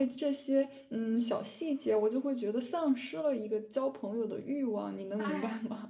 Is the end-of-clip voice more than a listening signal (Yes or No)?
Yes